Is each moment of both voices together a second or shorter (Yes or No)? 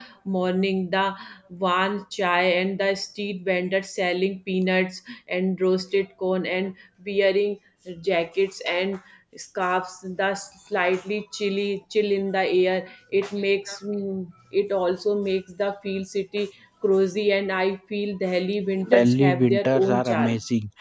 No